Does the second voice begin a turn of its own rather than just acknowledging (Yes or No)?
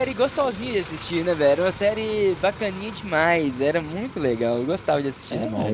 Yes